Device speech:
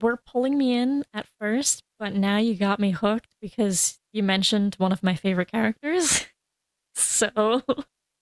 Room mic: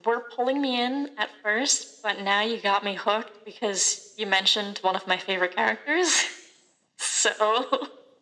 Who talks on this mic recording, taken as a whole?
echo only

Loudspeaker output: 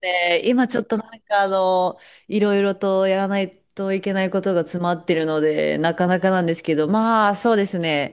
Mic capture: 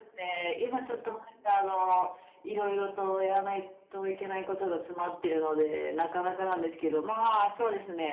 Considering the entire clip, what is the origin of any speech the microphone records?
echo only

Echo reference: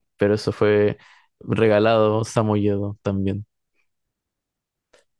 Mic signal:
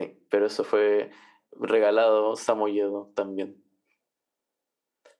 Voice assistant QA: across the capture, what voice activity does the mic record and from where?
echo only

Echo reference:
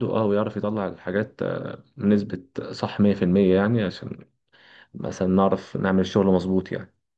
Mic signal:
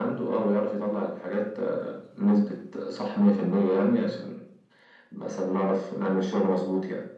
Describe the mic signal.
echo only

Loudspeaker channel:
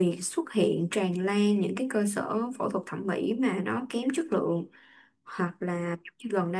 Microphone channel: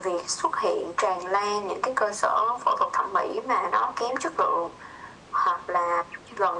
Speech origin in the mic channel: echo only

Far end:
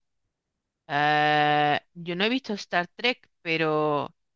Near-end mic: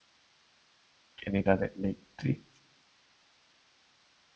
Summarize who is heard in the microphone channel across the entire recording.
user only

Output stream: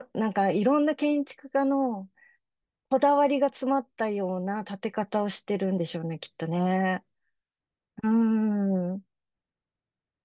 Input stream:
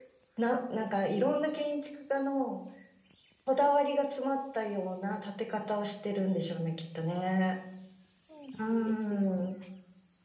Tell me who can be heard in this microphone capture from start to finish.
both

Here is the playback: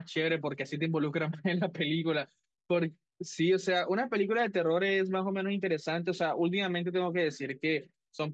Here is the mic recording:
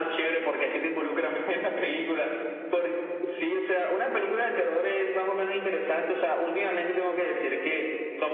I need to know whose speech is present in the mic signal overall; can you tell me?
echo only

